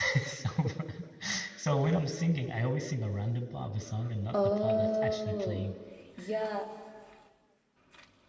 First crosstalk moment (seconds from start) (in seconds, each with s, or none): 4.3 s